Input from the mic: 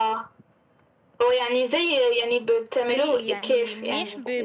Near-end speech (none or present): present